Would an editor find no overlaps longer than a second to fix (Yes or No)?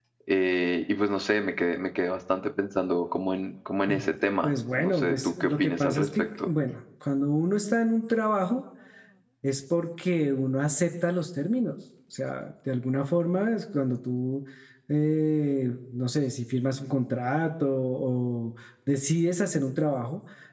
No